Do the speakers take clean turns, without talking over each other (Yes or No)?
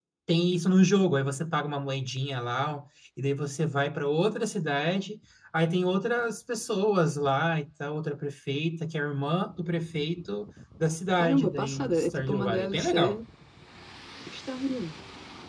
No